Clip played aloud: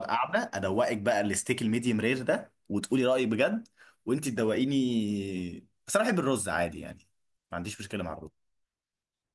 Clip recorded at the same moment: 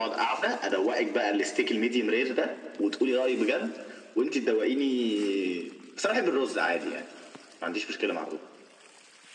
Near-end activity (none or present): none